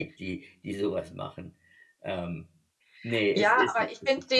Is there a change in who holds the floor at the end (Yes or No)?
Yes